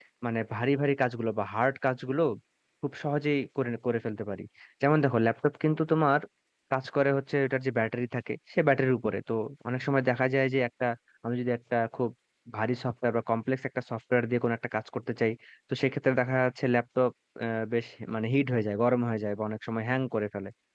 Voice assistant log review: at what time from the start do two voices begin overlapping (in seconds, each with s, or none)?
none